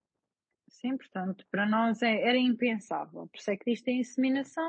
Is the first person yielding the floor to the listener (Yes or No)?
No